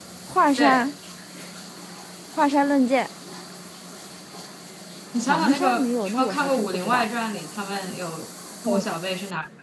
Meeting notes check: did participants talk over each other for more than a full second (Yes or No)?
Yes